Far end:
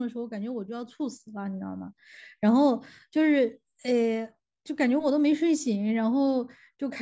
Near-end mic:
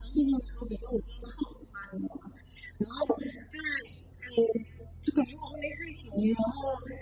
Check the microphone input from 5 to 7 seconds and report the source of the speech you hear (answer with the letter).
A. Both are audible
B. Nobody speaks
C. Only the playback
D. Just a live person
C